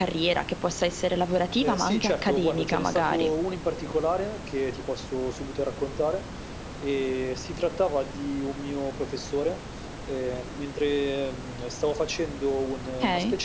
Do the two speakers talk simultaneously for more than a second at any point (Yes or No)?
Yes